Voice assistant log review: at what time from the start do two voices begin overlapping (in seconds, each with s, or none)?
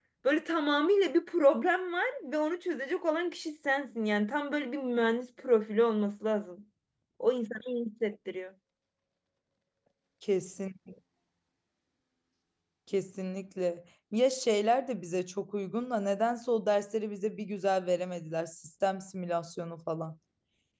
none